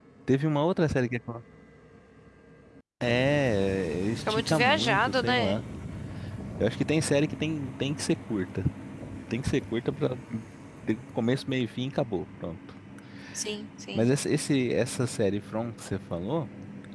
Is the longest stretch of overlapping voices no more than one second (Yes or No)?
No